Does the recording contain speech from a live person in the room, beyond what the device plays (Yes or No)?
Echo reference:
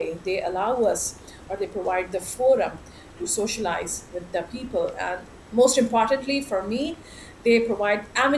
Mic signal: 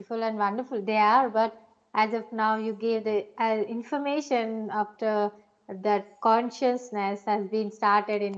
Yes